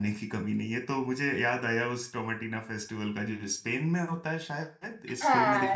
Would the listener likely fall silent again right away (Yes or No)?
No